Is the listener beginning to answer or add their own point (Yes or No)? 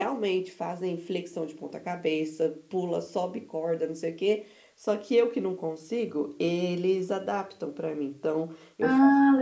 No